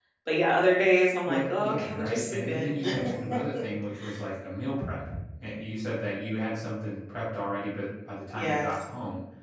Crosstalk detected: Yes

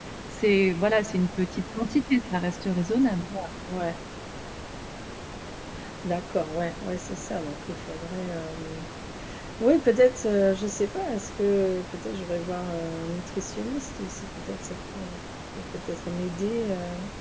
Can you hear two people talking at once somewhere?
No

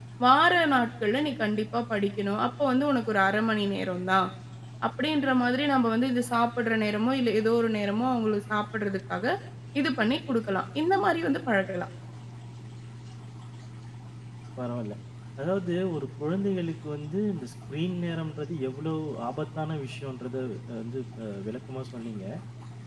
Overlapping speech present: No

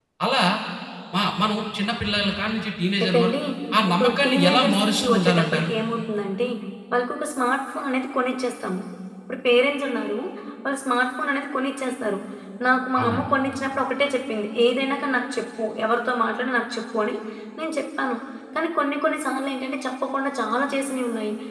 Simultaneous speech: Yes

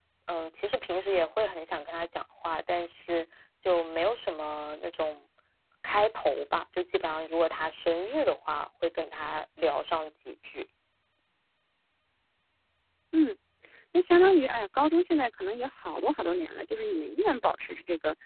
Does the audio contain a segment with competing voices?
No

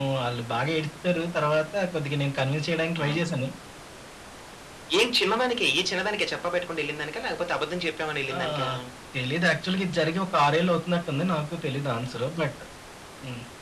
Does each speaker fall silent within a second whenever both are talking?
Yes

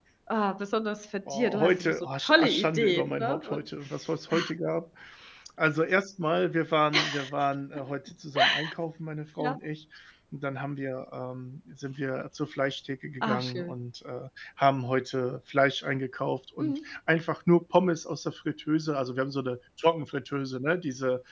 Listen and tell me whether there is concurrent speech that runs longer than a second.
Yes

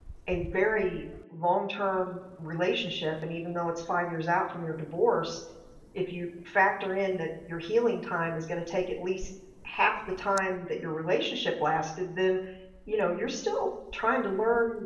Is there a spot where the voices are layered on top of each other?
No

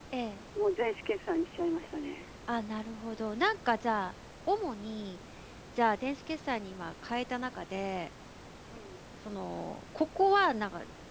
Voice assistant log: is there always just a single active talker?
Yes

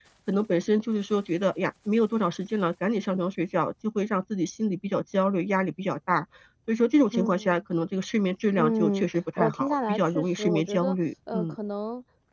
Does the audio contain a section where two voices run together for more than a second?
Yes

